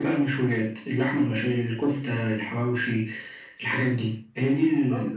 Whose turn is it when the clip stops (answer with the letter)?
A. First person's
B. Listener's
B